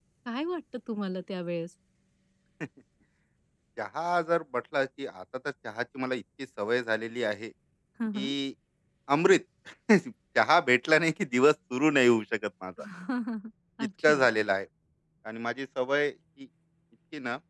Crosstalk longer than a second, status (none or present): none